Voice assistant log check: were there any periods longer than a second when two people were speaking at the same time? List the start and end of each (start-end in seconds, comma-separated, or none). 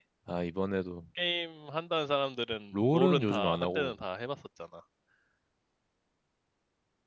2.7-3.9